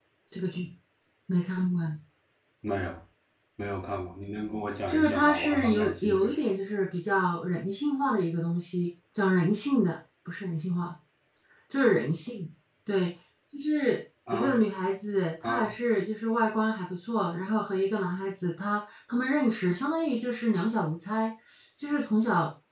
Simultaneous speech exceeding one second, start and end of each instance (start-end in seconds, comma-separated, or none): 4.9-6.4